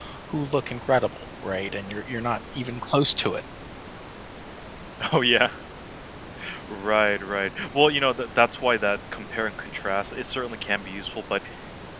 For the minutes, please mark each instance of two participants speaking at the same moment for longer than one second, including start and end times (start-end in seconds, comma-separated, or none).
none